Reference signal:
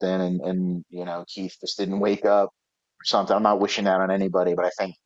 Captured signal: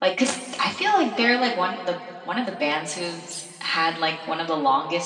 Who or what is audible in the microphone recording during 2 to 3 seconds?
user only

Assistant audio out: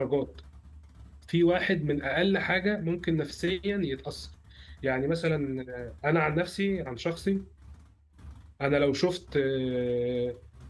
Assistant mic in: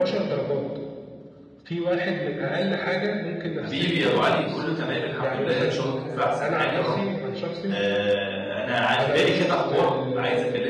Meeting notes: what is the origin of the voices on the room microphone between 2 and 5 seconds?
both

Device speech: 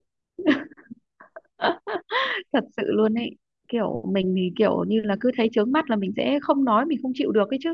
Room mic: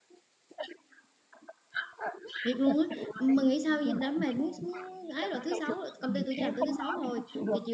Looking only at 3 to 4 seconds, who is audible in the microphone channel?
both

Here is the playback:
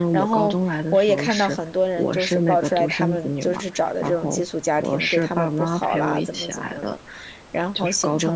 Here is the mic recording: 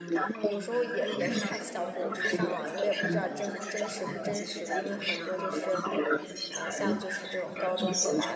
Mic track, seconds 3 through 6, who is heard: both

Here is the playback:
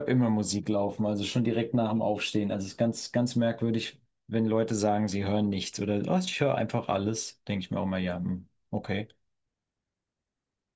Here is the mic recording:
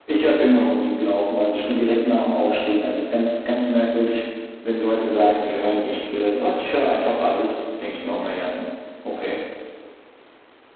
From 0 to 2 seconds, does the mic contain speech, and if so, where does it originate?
echo only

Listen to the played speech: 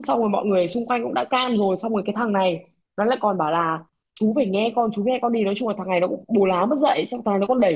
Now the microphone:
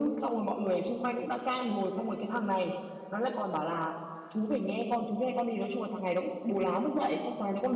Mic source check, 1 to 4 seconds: echo only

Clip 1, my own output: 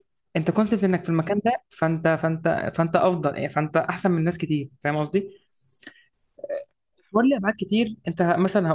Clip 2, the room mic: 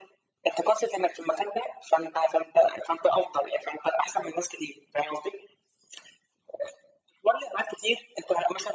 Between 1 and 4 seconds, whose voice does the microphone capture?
echo only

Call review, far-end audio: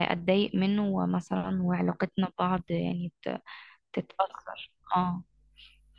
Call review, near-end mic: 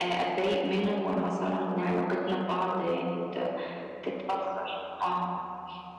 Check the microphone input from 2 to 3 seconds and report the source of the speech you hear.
both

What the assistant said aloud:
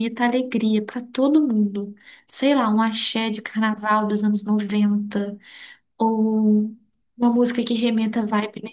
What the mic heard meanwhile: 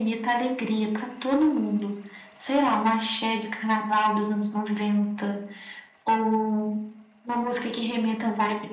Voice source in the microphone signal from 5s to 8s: echo only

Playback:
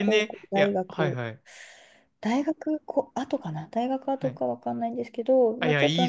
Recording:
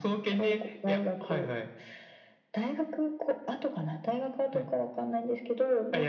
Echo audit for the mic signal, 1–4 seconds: echo only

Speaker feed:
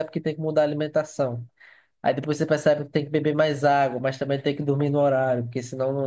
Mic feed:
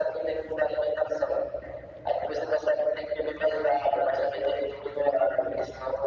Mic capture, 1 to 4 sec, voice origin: echo only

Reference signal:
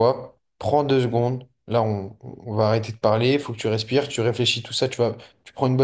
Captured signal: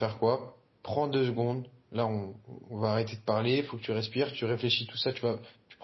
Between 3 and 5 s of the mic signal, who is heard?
echo only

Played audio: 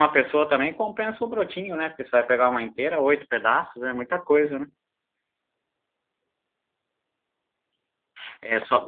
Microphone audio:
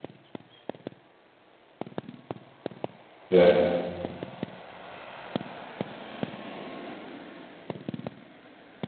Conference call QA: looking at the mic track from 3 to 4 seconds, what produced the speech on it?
user only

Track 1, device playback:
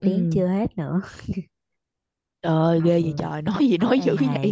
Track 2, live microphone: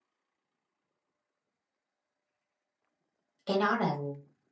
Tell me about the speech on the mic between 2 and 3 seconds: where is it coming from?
neither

